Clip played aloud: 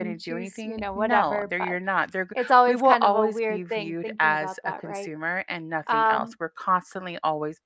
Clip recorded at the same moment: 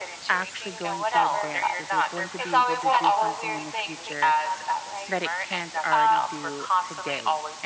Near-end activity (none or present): present